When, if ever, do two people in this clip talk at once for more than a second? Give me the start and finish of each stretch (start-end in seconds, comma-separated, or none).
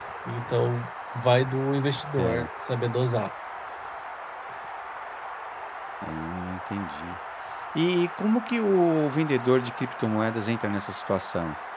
none